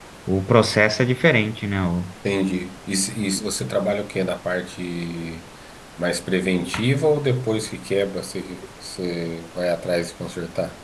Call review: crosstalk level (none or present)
none